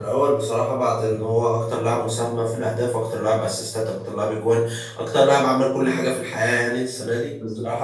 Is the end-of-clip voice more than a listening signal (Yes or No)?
No